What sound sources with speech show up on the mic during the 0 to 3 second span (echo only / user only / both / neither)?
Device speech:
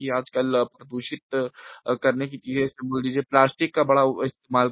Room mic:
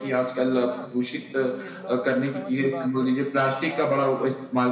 both